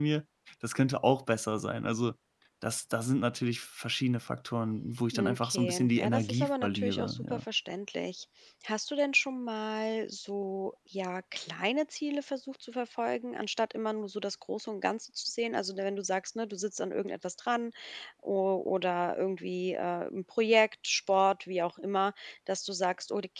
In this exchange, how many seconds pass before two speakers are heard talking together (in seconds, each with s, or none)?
5.1 s